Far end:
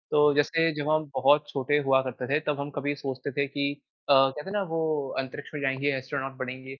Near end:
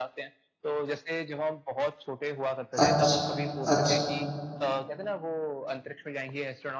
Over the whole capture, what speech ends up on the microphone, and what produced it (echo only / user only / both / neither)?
both